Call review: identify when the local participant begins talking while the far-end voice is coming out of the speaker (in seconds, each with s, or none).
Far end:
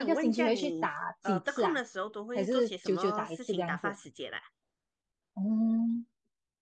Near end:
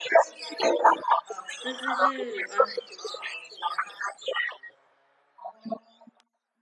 1.6 s